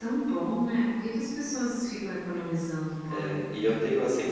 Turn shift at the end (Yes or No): Yes